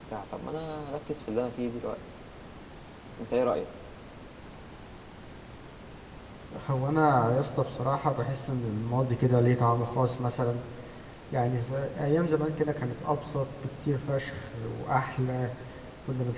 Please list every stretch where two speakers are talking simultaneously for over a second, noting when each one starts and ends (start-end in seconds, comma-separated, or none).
none